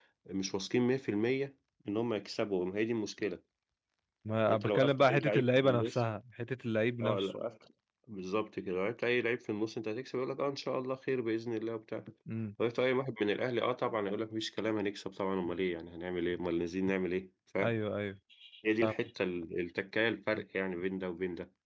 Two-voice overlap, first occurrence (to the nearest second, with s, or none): 4 s